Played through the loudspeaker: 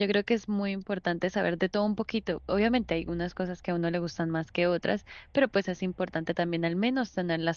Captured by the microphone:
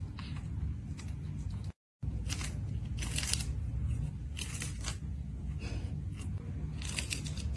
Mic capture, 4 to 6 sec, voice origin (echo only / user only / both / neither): neither